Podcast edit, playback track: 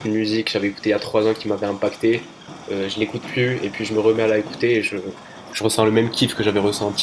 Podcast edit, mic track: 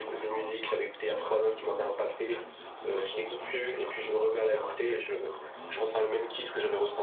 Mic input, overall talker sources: both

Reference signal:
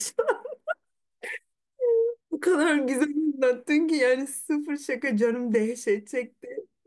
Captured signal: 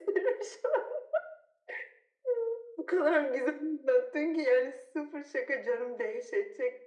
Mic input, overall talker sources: echo only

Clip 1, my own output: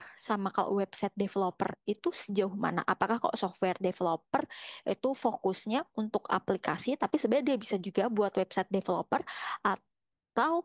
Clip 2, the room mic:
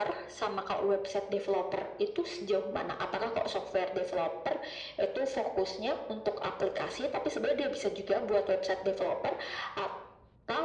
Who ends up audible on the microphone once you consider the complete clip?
echo only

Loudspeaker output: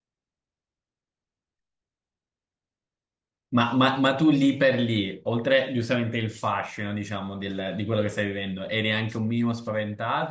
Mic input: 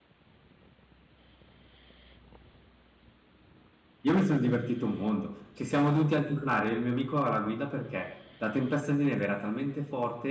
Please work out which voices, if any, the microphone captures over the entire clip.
user only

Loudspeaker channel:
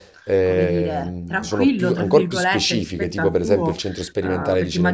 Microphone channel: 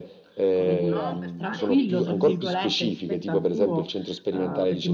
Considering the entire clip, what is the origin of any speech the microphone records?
both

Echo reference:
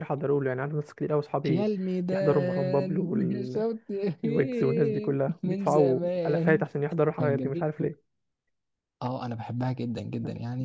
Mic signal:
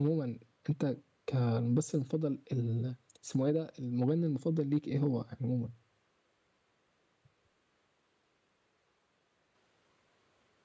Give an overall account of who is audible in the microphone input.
user only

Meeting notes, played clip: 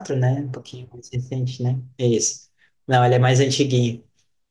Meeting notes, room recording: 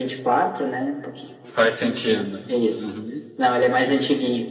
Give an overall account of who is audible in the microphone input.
both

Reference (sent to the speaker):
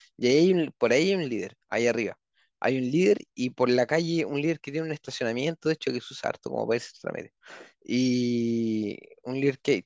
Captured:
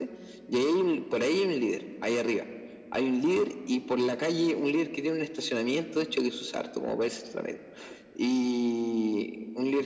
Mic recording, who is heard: echo only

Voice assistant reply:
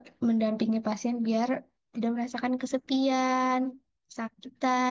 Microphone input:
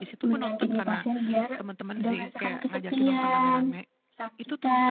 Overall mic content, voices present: both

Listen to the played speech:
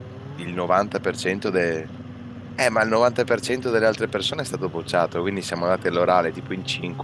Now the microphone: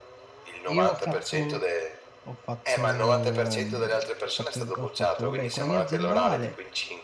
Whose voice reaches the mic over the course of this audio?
both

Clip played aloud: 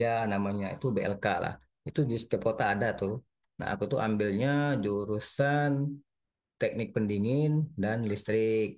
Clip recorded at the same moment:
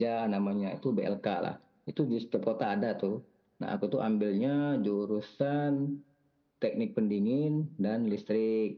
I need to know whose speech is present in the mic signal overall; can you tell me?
echo only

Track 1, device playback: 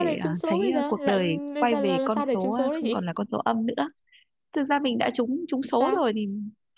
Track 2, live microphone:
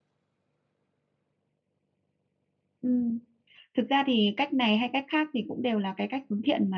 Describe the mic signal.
user only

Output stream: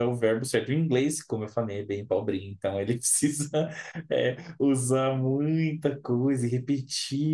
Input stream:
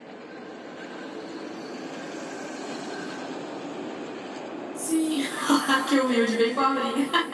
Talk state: user only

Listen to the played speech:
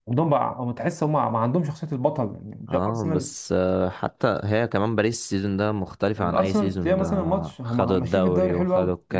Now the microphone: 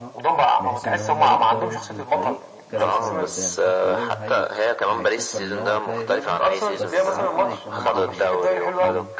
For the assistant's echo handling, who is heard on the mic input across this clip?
both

